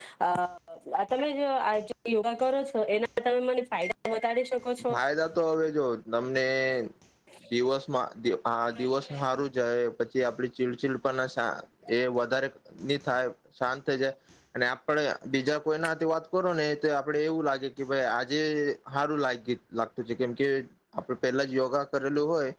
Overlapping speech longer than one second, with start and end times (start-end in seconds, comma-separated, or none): none